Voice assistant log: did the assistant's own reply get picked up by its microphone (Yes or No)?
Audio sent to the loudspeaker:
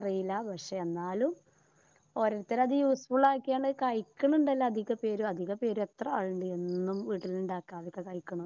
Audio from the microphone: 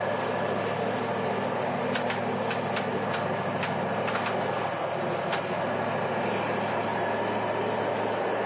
No